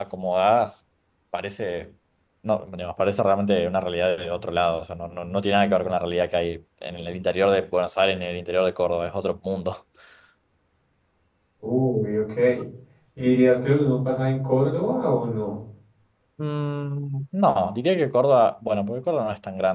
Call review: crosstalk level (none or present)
none